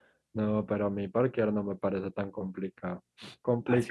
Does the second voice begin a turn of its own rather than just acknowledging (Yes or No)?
No